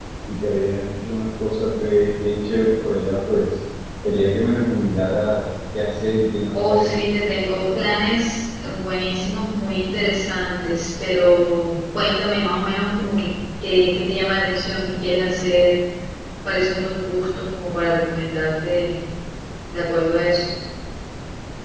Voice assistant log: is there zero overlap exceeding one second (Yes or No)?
No